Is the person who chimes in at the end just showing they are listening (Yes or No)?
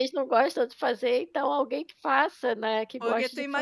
No